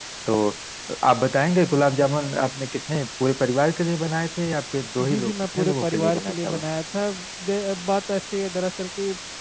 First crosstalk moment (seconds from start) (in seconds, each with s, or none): 5.0 s